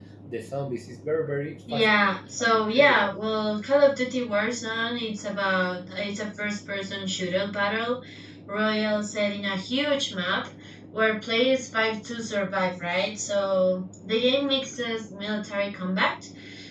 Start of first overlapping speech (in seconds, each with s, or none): 1.7 s